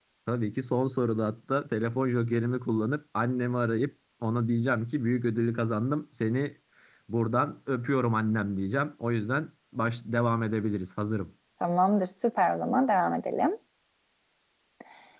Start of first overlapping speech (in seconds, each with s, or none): none